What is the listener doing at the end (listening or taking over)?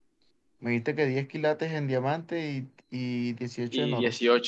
taking over